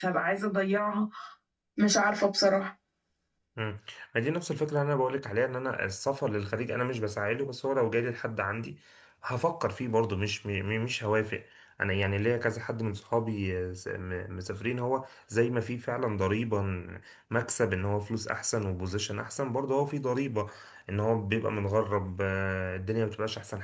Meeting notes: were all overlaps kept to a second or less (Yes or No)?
Yes